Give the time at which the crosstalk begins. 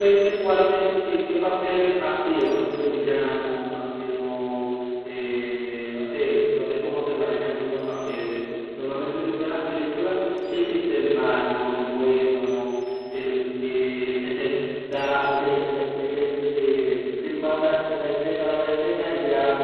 none

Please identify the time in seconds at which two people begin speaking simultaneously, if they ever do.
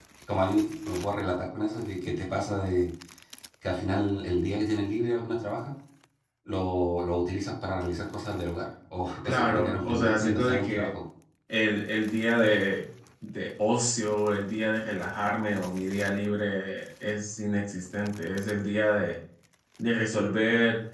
9 s

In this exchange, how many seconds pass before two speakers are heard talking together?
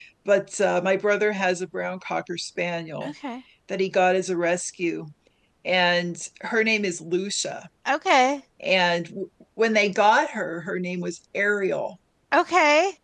none

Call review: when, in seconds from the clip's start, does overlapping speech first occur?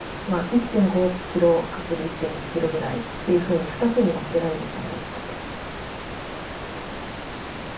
none

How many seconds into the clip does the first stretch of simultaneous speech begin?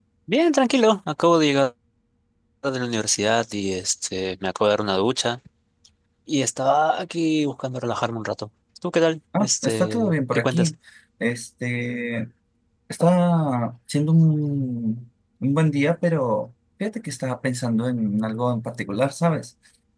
9 s

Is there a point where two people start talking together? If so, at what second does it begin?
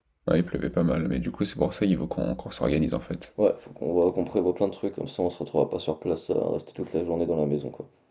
none

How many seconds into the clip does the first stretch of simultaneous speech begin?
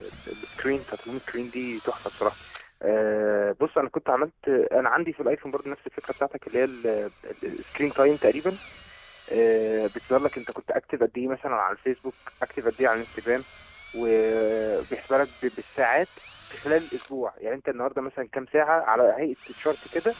none

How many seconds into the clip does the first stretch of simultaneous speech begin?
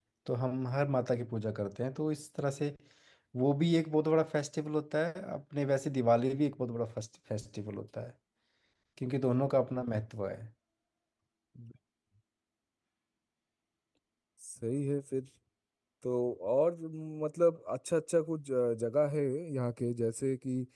none

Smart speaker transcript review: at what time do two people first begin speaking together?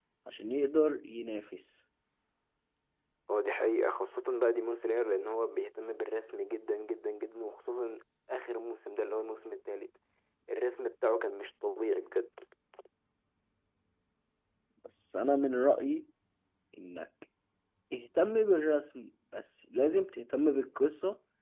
none

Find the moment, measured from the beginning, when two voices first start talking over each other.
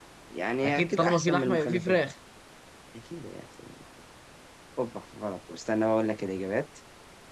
1 s

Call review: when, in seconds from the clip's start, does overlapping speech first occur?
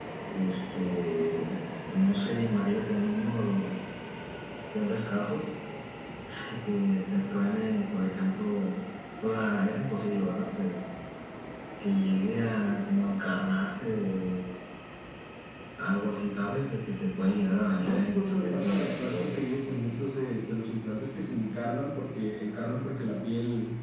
18 s

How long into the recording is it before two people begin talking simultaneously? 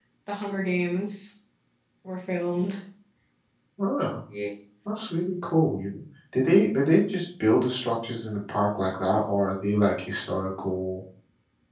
none

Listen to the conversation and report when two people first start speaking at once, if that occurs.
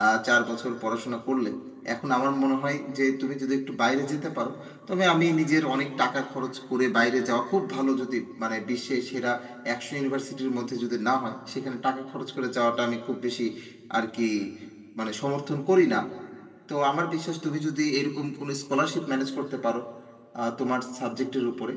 none

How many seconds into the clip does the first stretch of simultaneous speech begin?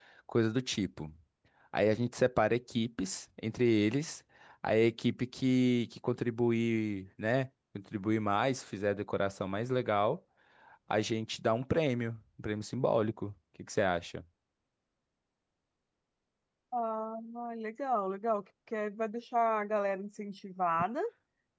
none

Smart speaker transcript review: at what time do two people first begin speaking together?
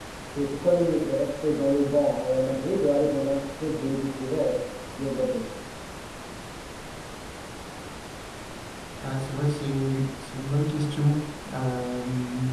none

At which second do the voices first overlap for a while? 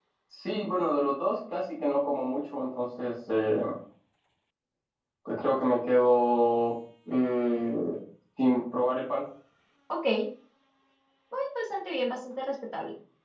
none

